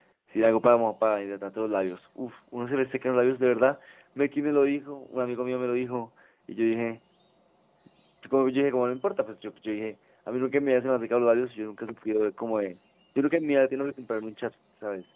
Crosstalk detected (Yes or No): No